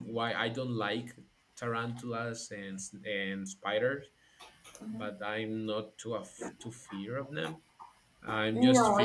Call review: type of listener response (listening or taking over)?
listening